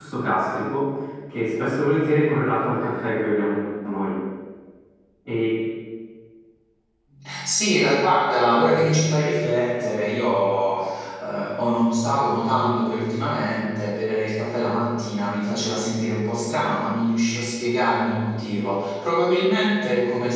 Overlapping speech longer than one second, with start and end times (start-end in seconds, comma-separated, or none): none